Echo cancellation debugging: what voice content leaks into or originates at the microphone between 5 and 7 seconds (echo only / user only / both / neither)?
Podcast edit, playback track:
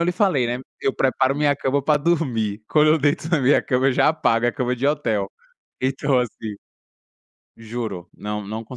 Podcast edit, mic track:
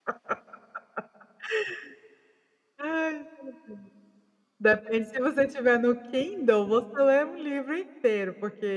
user only